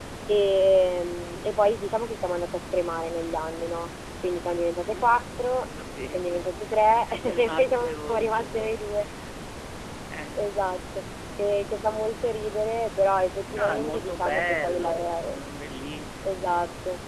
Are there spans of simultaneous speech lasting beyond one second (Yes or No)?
Yes